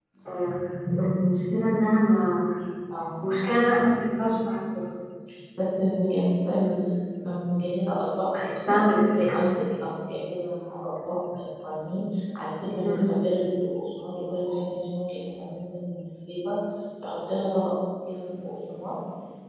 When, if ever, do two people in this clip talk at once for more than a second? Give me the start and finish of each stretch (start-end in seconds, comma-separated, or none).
none